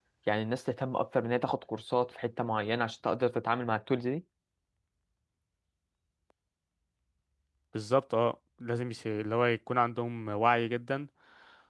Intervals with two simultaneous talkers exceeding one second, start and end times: none

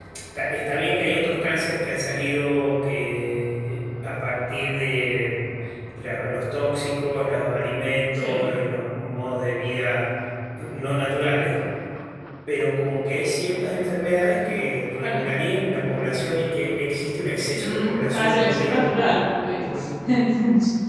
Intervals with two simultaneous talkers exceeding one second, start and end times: 17.6-18.9

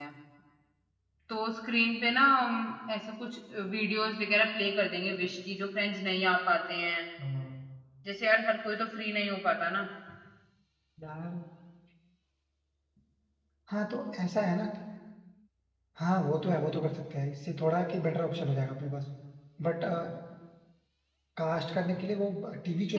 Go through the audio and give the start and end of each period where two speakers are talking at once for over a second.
none

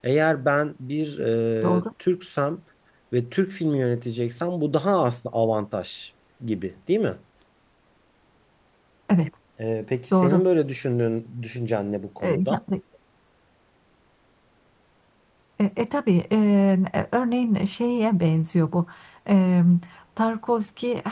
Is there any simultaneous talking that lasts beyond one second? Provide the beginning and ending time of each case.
none

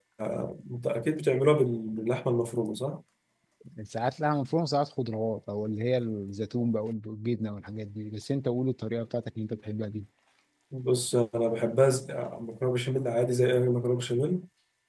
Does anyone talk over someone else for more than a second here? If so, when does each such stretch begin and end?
none

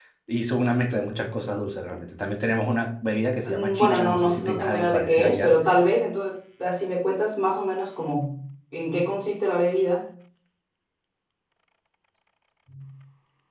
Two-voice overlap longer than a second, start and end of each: 3.5-5.5

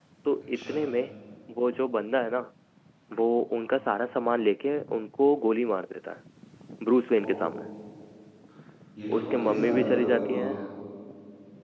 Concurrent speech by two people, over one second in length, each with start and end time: 9.2-10.5

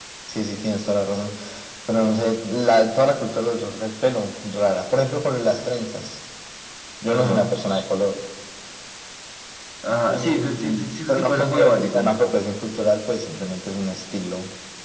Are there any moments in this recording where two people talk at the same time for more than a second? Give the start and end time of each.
10.1-12.1

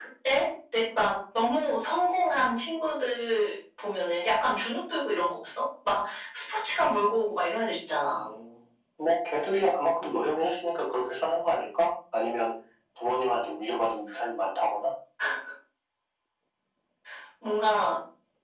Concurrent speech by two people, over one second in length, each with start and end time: none

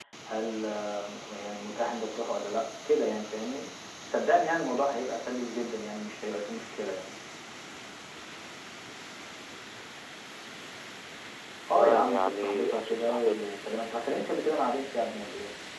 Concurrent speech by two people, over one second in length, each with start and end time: 11.7-13.4

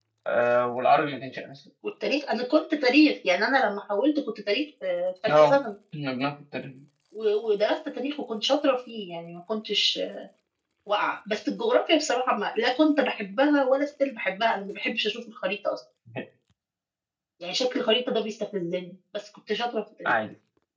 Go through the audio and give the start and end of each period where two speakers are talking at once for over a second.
none

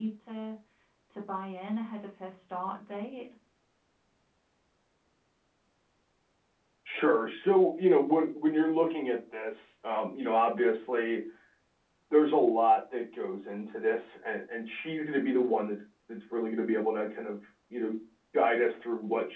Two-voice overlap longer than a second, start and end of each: none

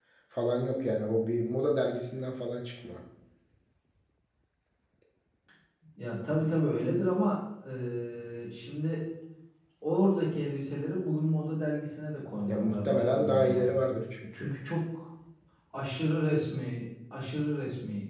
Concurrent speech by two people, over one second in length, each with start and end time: 12.5-13.7

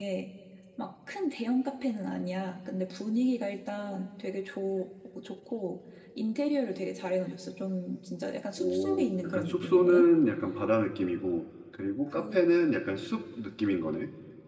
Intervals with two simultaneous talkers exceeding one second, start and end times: 8.6-10.1

